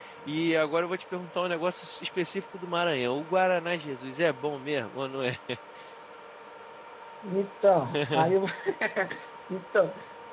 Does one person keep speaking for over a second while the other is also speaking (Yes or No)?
No